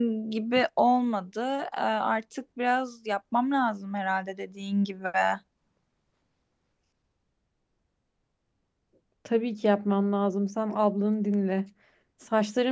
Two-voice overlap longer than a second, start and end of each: none

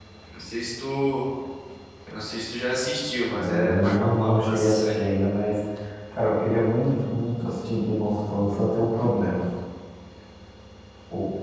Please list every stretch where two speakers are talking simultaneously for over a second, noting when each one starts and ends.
3.3-5.0

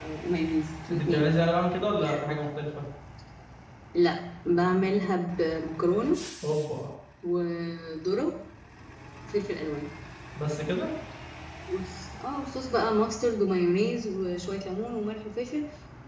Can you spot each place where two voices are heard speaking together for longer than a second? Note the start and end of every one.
none

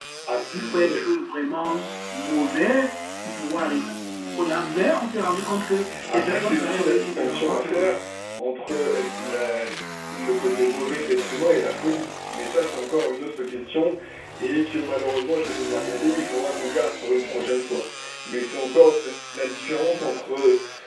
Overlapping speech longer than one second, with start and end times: 6.1-7.8

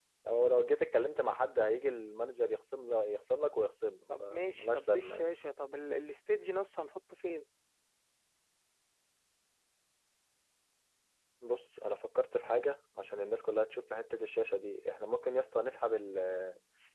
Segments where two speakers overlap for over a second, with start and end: 4.1-5.3

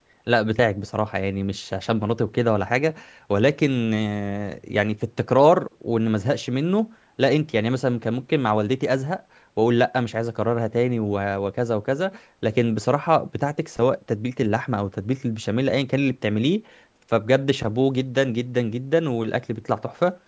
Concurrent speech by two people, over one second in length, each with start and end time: none

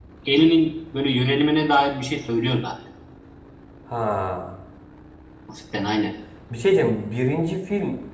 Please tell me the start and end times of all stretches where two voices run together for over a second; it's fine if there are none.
none

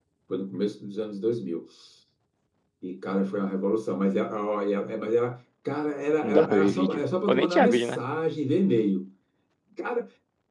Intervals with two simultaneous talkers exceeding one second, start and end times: 6.2-8.0

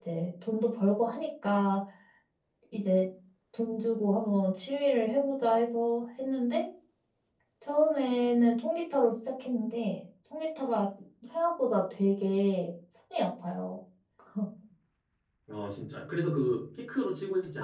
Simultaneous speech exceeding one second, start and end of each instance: none

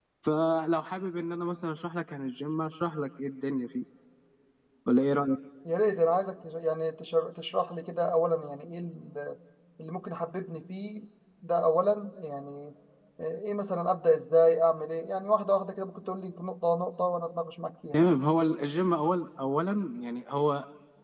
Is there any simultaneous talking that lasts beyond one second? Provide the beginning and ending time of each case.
none

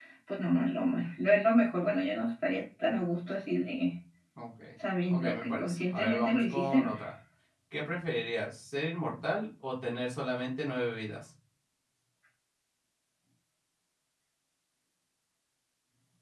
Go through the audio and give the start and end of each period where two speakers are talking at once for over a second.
5.1-6.9

